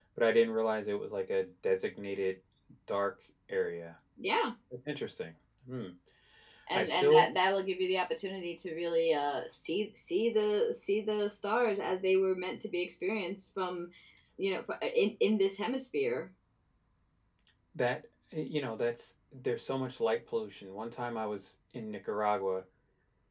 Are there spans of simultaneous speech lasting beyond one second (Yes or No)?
No